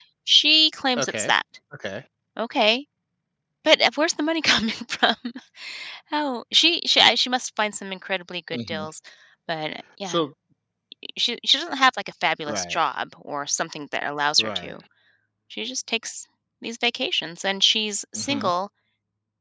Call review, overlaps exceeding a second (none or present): none